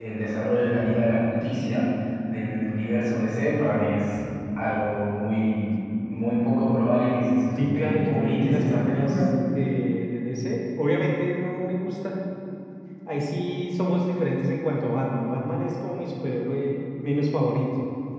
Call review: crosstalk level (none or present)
present